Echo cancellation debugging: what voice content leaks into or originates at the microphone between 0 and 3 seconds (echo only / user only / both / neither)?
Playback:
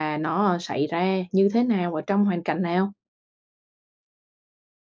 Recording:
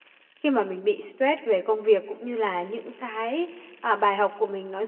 user only